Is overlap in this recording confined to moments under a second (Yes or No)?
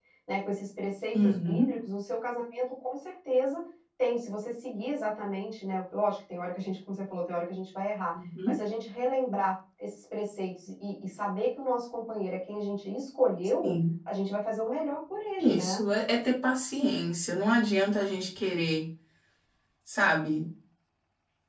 Yes